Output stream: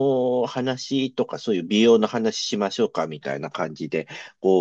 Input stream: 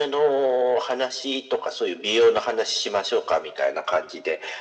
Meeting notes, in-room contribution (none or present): none